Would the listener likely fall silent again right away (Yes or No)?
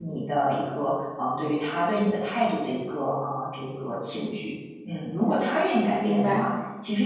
Yes